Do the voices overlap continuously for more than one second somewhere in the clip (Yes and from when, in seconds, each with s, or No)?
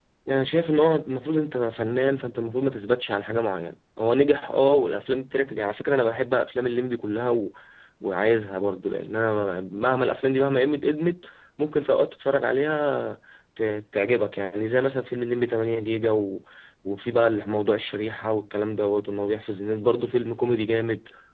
No